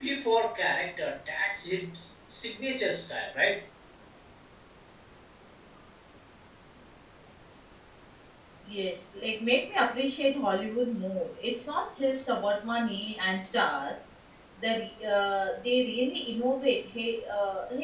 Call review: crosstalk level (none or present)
none